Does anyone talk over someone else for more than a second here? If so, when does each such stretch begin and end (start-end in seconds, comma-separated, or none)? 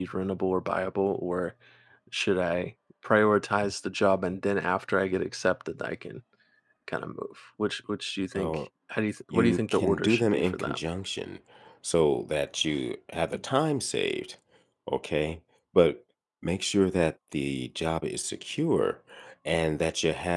9.3-10.8